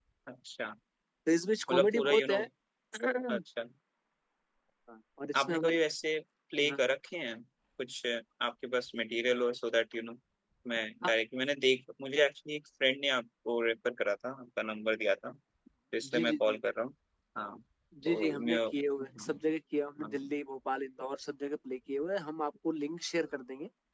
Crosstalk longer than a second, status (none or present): present